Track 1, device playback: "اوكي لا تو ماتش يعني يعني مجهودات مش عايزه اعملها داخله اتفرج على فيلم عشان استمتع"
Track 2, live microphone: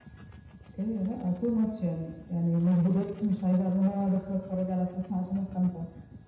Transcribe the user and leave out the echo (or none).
none